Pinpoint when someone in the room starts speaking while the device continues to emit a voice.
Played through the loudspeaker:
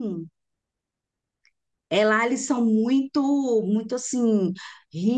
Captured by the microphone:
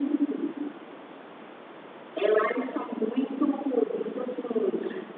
none

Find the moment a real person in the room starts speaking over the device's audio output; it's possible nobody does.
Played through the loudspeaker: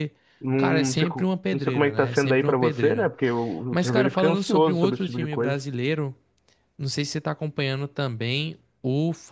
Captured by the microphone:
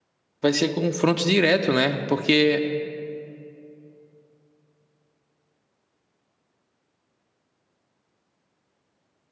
0.4 s

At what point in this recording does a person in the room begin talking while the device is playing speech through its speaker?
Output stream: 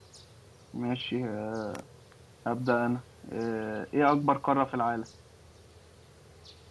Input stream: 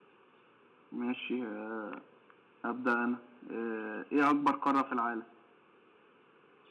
none

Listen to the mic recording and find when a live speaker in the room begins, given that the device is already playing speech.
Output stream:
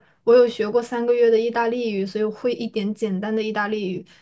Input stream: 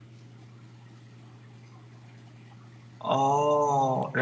3.0 s

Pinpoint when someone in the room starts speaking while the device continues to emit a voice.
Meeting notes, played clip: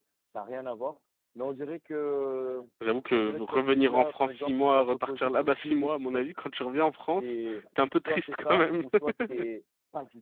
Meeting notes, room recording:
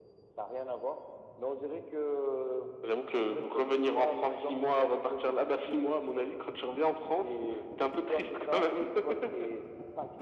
none

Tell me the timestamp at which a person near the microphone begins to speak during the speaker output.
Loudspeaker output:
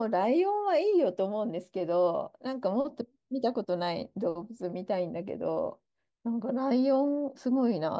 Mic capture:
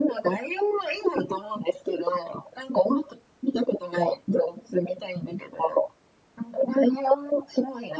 none

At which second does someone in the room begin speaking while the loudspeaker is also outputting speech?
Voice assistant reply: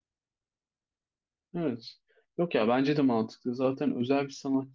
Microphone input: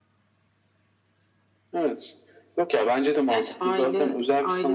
3.3 s

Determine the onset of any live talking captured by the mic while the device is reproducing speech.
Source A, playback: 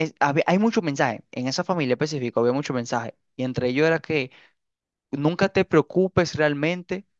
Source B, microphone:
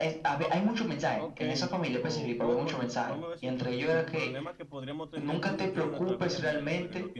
0.4 s

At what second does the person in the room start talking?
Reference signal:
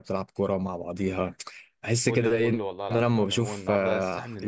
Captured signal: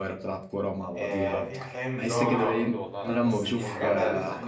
1.0 s

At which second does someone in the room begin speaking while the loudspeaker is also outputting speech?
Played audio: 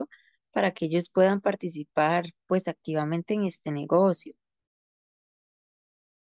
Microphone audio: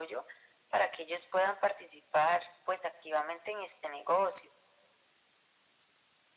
none

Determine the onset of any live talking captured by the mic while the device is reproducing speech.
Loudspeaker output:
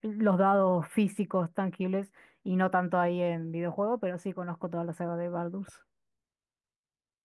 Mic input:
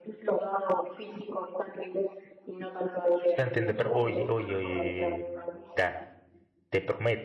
3.2 s

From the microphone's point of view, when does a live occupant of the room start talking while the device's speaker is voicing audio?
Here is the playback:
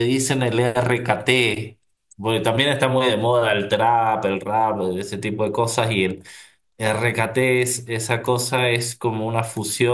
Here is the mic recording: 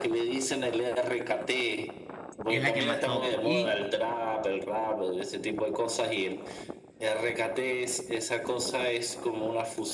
2.5 s

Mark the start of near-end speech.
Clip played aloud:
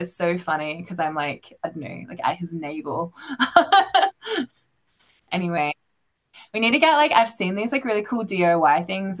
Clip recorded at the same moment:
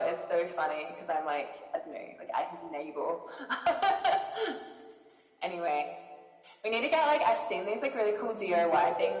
8.1 s

